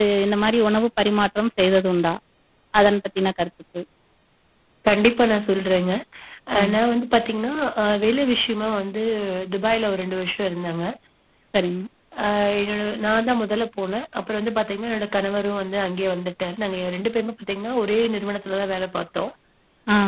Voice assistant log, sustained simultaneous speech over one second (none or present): none